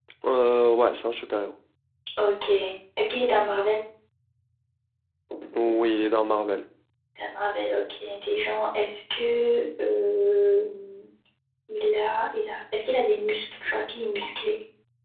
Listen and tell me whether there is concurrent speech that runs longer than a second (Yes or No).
No